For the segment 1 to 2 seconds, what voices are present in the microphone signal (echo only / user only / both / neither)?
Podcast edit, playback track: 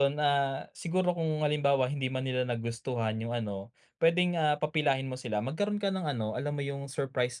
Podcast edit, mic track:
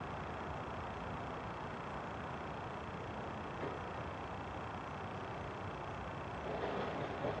neither